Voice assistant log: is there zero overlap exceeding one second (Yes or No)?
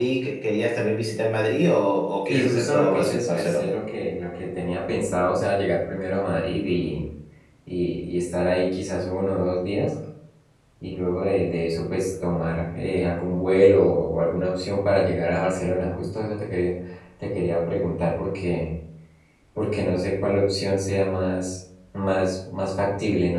No